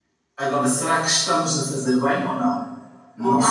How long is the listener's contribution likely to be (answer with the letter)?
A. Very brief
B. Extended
B